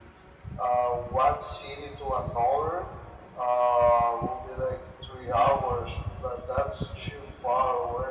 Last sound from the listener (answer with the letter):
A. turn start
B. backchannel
A